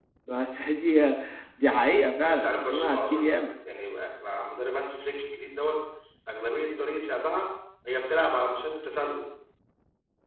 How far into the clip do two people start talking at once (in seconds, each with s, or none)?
2.2 s